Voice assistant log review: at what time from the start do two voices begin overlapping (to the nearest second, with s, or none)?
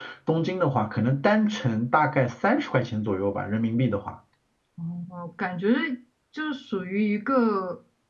none